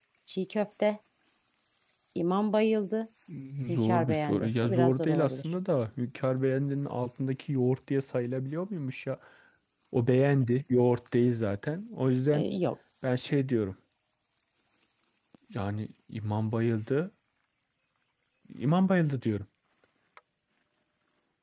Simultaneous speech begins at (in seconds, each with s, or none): 3.7 s